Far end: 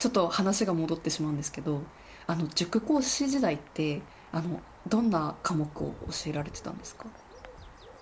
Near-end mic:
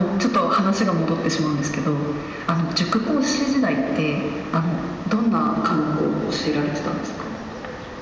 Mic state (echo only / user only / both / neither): echo only